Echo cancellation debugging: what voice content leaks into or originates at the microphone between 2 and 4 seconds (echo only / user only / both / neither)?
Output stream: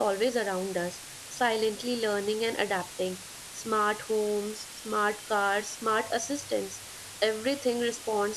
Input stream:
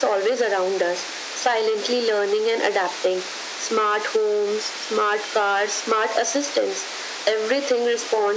echo only